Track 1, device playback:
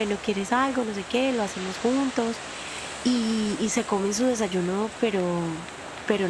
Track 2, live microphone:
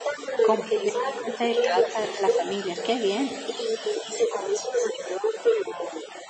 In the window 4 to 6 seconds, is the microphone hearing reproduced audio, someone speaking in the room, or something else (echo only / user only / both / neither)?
echo only